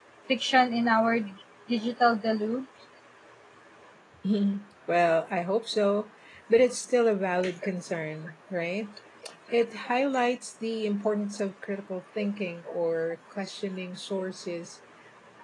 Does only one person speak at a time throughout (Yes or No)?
Yes